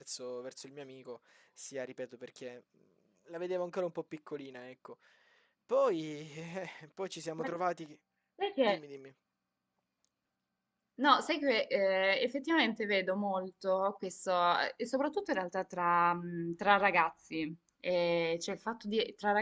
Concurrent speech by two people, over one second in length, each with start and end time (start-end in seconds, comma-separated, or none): none